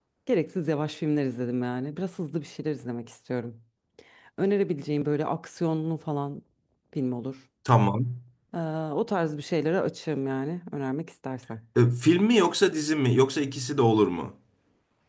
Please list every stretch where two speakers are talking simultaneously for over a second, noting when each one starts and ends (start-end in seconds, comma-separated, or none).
none